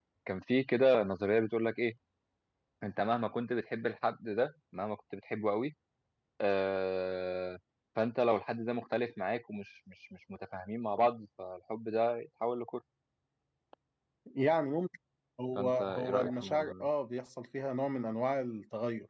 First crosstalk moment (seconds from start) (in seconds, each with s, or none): 15.6 s